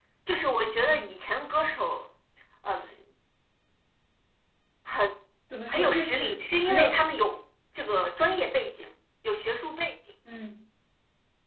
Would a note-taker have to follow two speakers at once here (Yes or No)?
Yes